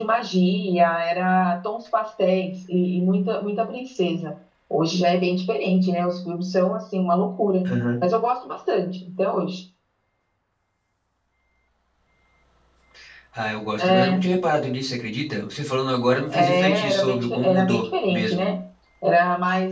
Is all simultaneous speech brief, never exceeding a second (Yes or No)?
No